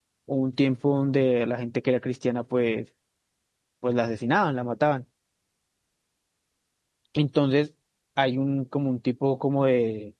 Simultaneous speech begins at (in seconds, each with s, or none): none